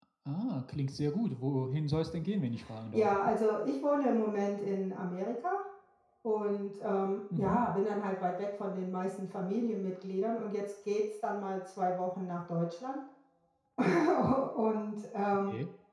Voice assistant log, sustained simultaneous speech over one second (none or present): none